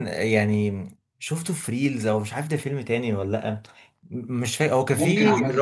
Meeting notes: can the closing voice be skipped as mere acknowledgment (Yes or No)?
Yes